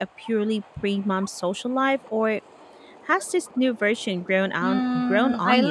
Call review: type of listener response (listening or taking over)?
taking over